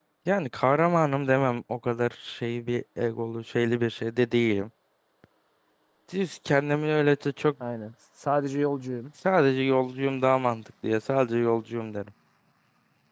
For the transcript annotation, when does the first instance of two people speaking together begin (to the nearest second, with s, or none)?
none